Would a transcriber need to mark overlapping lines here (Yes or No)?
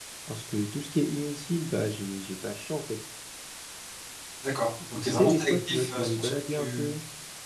Yes